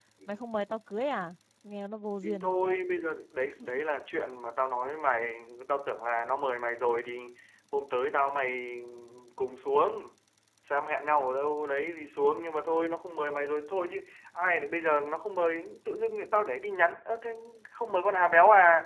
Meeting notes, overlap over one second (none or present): none